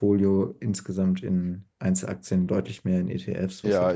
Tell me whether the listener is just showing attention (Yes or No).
No